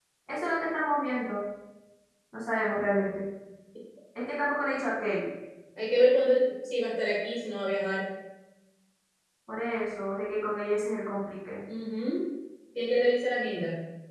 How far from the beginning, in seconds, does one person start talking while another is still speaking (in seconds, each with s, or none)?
none